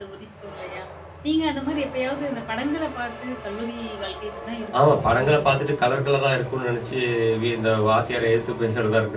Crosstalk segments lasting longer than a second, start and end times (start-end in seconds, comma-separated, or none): 4.9-6.1